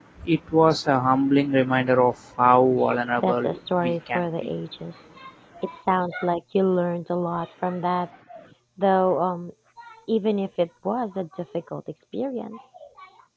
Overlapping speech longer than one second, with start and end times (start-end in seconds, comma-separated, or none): 3.2-4.5